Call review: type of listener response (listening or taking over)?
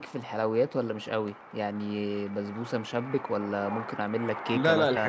taking over